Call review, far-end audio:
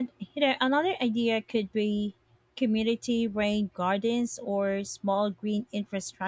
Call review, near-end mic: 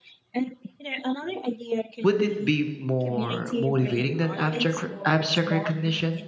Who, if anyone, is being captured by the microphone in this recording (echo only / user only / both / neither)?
both